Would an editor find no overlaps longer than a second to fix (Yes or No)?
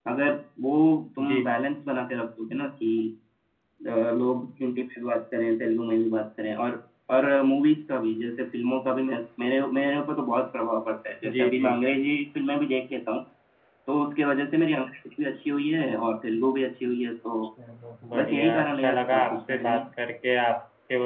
No